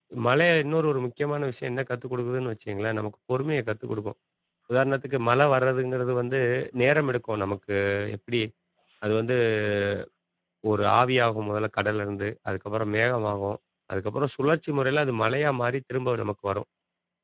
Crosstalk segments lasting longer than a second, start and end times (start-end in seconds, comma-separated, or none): none